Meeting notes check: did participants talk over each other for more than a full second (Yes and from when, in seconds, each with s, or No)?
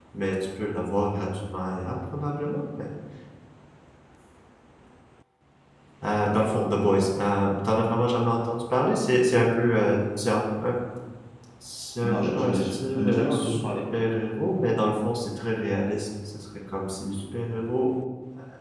Yes, from 12.1 s